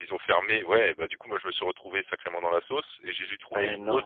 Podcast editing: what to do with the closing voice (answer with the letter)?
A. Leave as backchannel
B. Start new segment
A